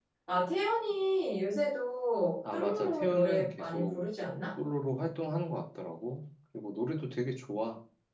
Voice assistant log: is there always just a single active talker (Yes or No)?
No